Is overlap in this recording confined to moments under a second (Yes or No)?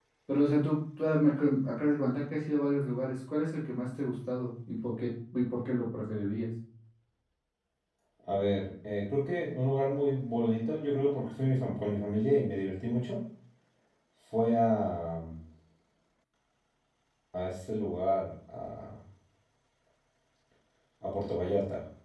Yes